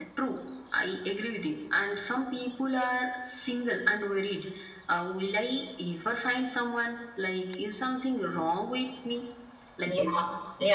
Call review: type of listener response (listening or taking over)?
taking over